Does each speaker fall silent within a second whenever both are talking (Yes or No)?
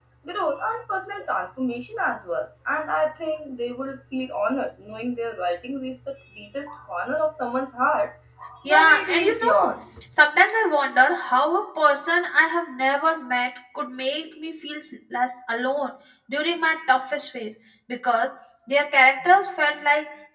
No